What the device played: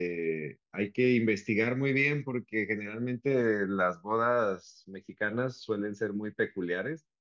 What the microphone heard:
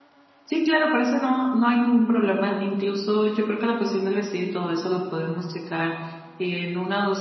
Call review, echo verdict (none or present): none